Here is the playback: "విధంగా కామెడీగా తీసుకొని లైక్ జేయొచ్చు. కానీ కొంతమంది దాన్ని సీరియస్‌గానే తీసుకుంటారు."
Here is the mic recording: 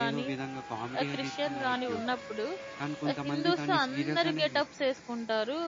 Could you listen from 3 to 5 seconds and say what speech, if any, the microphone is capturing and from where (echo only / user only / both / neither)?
both